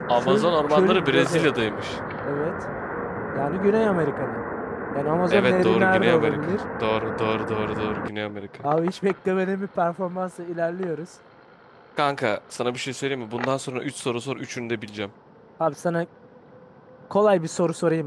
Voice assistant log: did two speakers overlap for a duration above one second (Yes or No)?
Yes